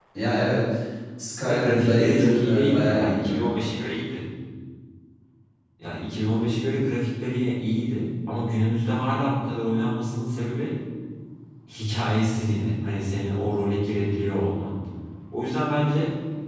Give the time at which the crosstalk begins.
1 s

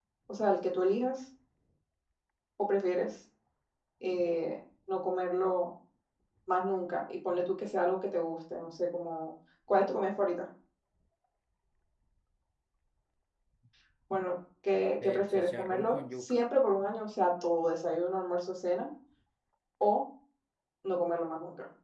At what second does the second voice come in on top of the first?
15 s

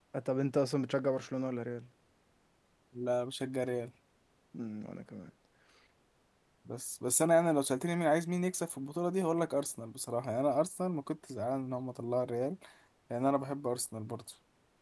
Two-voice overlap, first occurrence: none

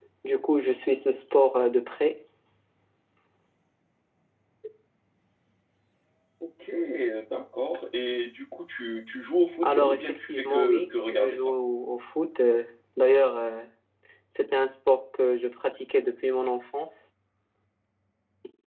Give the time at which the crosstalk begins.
10 s

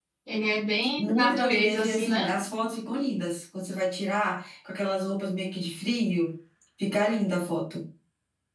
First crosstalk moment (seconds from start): 1 s

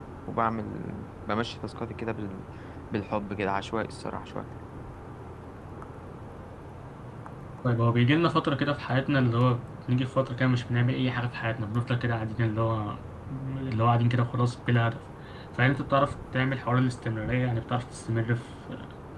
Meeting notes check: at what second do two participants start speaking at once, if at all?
none

